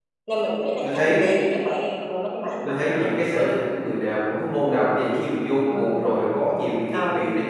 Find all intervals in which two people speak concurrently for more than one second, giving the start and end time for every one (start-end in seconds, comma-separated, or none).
none